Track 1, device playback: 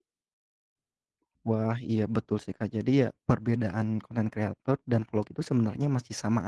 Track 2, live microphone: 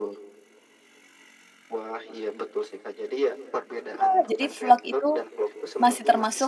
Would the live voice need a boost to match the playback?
No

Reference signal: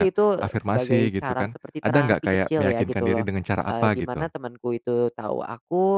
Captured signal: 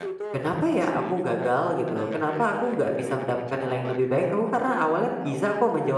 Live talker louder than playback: Yes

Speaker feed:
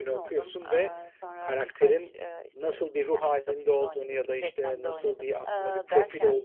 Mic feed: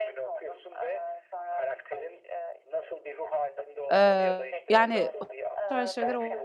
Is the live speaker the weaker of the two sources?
No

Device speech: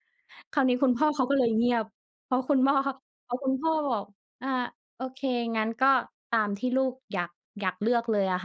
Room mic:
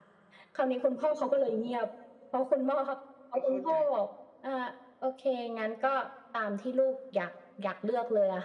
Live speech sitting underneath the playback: Yes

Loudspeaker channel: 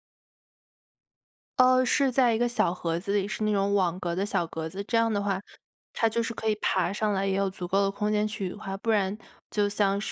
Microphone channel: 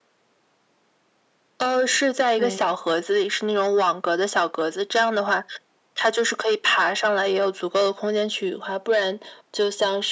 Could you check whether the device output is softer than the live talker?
No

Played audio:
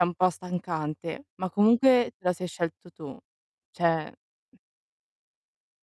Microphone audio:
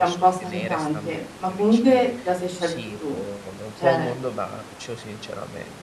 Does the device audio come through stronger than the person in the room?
Yes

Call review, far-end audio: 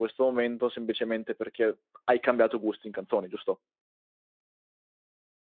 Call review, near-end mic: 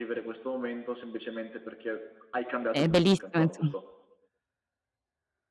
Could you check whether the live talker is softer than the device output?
No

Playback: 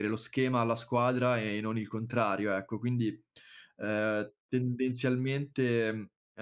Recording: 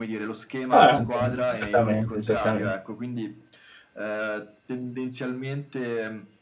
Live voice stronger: Yes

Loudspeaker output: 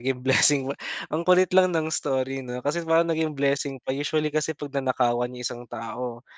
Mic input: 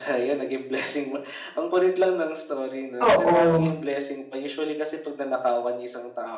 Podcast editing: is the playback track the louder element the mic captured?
No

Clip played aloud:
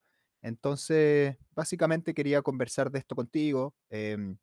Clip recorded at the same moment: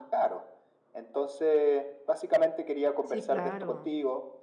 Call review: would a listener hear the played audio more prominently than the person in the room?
Yes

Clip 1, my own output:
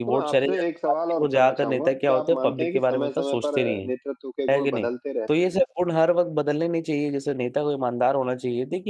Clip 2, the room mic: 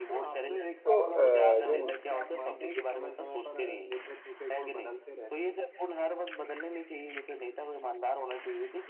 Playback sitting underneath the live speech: Yes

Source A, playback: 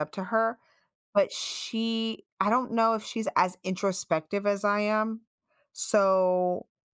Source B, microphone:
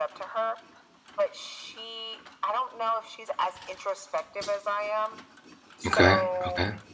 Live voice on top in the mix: Yes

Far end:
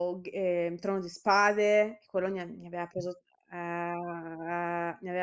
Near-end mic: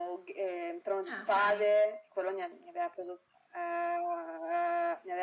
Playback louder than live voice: Yes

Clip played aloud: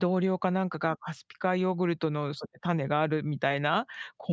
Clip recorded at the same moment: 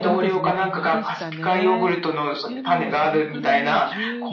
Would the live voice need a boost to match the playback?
Yes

